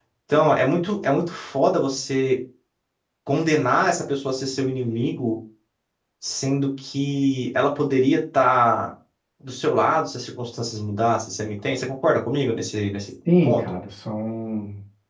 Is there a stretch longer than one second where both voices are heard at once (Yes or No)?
No